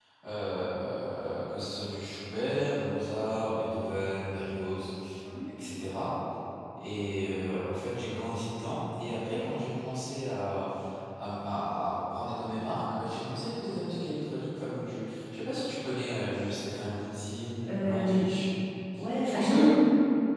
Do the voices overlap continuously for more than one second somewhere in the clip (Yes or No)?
No